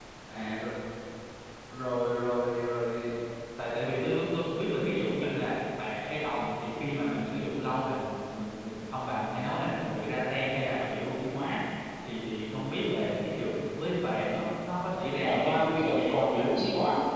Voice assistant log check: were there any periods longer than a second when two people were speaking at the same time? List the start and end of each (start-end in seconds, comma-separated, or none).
15.2-16.5